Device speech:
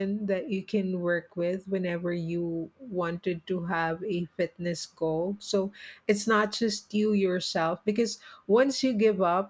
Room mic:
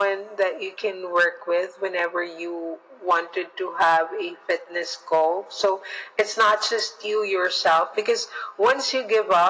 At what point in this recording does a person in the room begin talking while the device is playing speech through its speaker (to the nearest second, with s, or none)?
none